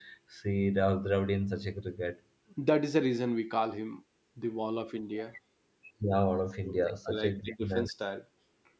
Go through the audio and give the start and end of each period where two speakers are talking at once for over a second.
6.6-7.9

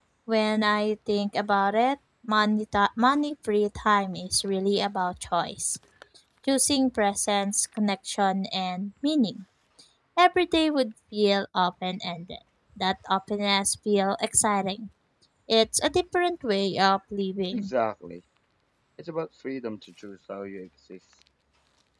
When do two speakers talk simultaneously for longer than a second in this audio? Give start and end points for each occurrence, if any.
none

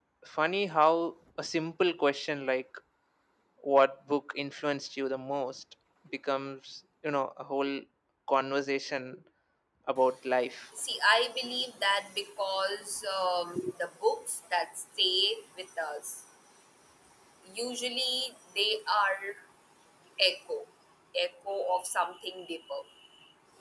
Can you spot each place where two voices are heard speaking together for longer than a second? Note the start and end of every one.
none

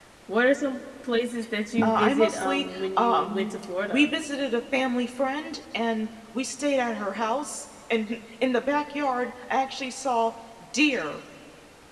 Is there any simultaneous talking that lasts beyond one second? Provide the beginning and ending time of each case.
1.8-3.5

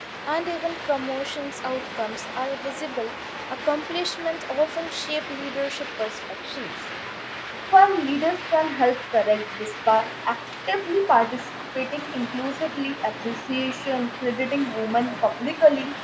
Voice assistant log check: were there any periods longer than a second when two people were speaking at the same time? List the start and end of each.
none

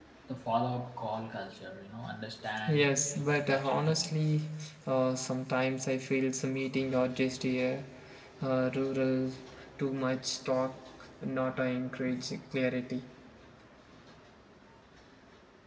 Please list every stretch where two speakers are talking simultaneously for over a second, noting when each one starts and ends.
2.7-4.1

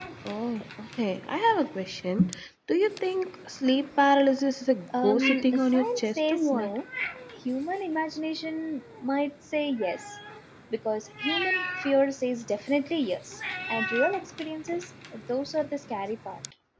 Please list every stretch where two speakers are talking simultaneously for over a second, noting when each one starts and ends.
5.0-6.7

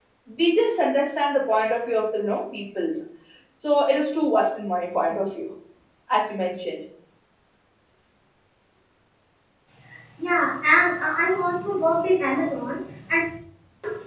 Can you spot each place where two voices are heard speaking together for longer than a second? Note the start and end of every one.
none

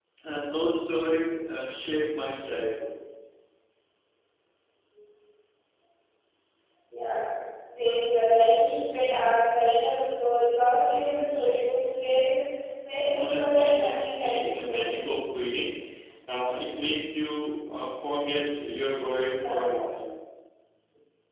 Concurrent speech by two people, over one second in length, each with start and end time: 13.1-15.1

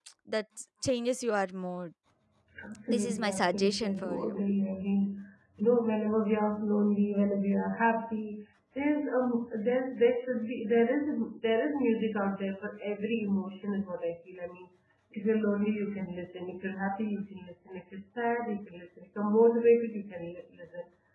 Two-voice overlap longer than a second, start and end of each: 2.9-4.5

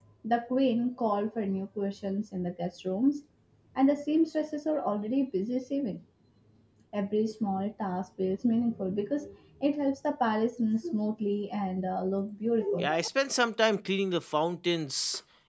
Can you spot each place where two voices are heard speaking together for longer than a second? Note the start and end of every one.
none

